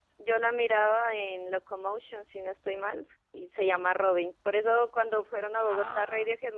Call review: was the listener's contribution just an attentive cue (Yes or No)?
Yes